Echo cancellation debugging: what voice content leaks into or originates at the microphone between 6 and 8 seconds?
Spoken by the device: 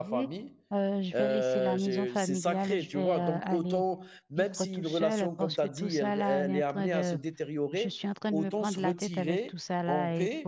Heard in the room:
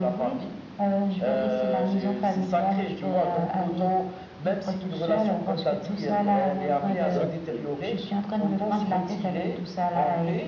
both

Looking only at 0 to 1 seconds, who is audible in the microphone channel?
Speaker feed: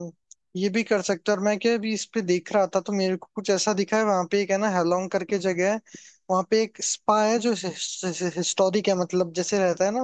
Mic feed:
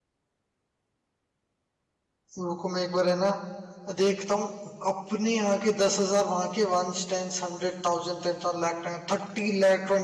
neither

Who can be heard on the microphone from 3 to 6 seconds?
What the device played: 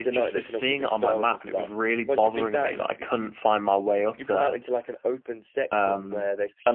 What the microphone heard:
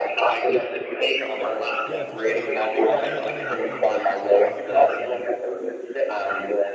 both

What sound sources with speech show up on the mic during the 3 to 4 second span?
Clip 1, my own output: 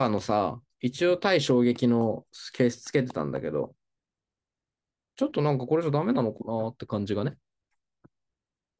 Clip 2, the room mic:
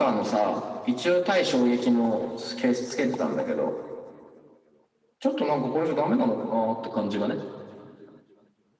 echo only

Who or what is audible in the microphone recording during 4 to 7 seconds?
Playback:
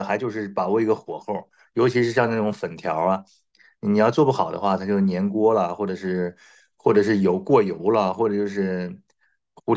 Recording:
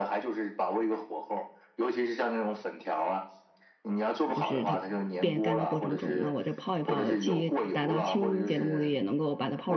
both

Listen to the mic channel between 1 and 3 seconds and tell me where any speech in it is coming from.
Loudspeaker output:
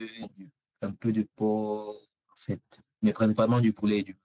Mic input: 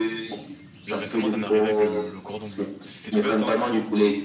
both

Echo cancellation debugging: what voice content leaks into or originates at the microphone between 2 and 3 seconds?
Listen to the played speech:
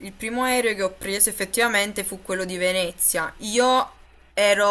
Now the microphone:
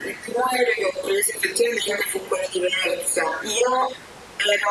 echo only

